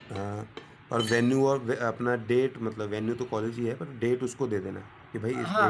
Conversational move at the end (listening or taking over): taking over